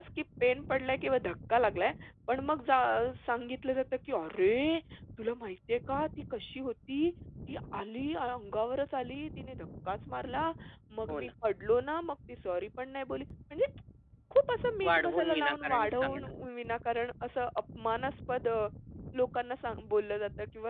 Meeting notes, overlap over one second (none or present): present